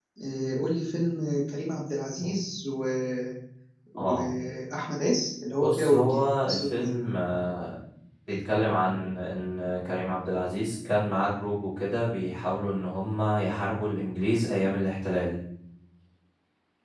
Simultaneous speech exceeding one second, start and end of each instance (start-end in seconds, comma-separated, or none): 5.6-6.9